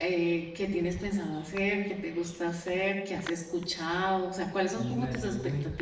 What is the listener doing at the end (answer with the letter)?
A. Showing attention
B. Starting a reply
A